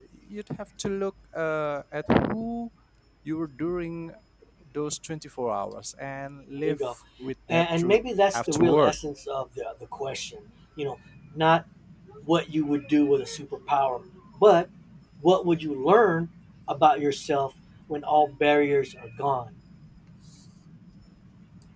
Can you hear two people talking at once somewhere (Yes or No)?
Yes